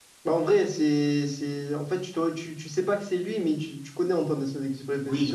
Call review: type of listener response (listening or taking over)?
taking over